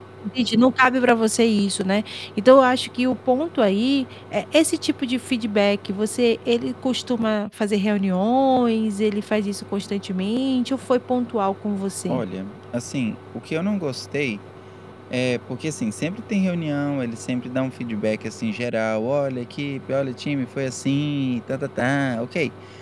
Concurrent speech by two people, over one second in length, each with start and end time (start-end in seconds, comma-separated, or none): none